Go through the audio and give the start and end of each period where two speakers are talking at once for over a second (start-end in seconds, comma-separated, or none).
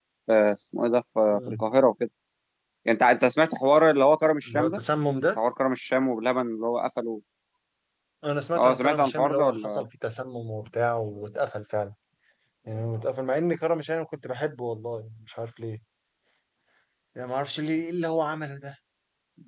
8.6-9.8